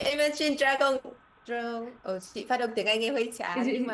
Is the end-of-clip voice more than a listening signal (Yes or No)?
Yes